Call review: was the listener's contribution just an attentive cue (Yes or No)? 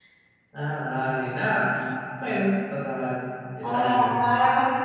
No